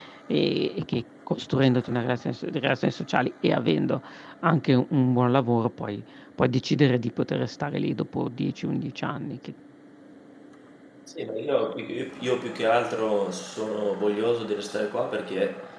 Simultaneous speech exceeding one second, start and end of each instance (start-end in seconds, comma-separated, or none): none